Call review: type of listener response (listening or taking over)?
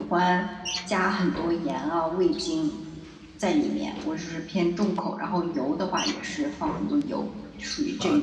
taking over